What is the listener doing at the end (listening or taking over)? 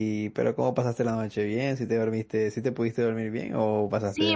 taking over